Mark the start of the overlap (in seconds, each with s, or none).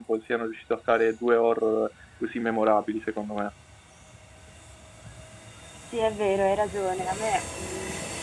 none